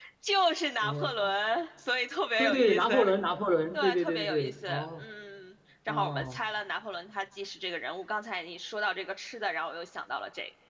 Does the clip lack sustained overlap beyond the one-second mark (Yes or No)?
No